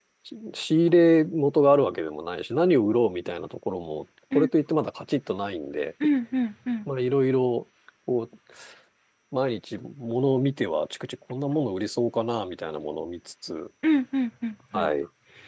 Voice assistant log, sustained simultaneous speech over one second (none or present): none